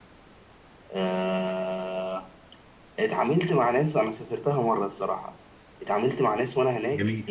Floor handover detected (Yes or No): No